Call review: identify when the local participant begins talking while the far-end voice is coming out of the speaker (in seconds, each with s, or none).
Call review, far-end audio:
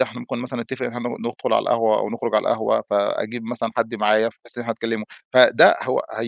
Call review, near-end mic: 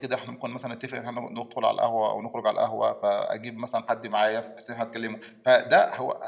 none